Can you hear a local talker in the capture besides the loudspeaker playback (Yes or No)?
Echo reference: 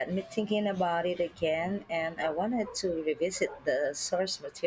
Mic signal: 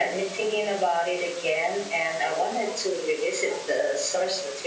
No